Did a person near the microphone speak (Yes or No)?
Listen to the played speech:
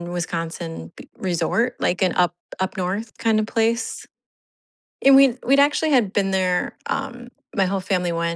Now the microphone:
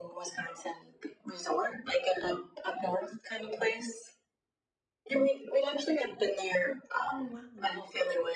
Yes